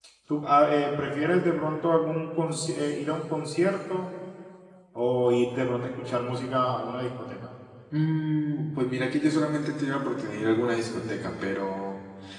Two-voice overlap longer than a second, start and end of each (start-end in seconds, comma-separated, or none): none